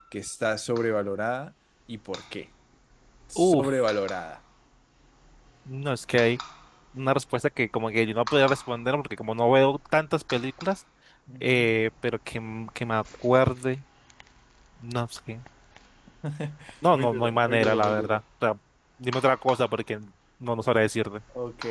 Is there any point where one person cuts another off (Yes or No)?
Yes